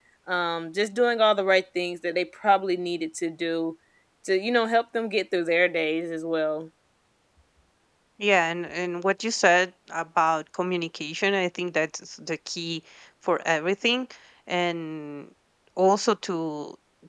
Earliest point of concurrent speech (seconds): none

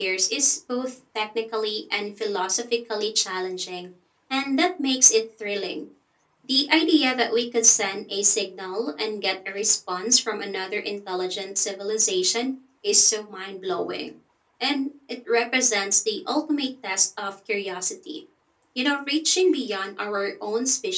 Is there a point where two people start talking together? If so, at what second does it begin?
none

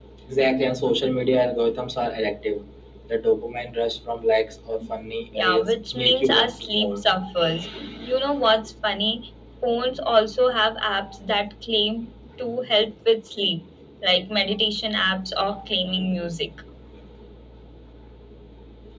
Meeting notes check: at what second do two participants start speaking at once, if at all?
5.4 s

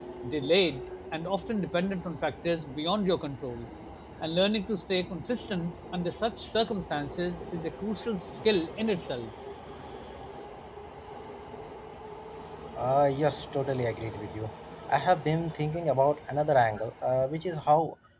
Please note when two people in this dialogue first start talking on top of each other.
none

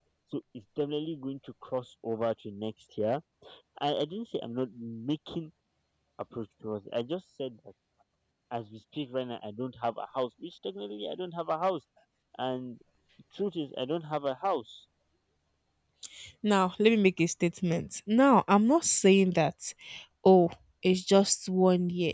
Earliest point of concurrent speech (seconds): none

